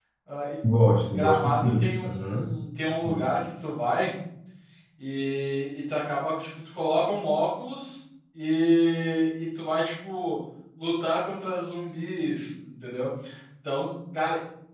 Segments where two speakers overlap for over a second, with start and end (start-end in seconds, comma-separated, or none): 1.1-2.4